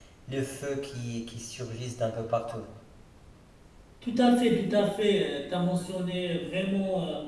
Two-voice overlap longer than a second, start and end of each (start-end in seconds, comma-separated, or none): none